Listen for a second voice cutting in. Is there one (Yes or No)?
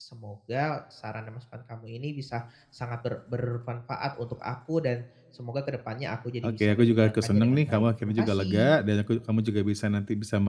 Yes